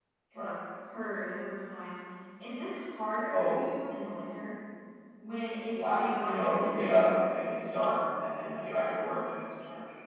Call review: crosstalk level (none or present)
present